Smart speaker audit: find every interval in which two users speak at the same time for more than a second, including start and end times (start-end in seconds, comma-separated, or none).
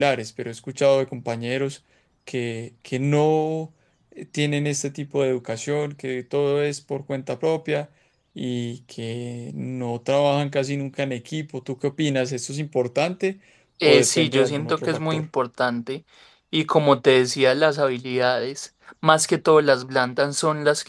13.8-15.2